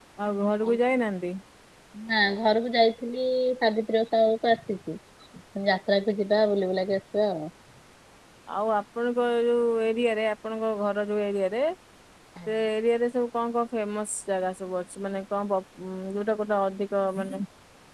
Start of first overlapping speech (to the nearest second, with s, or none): none